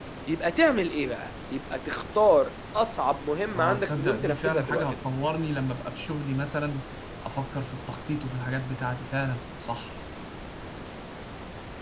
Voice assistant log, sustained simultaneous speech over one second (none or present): present